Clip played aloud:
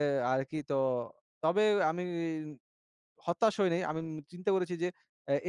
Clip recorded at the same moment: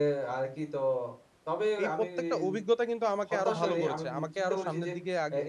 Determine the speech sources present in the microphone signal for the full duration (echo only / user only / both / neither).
both